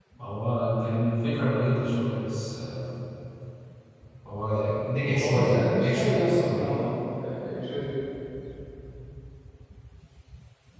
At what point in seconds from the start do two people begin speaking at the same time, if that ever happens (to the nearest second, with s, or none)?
5 s